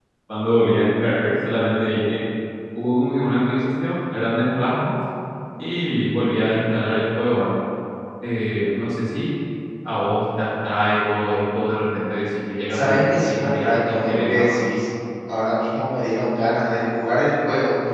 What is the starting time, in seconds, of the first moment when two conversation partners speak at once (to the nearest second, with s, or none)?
13 s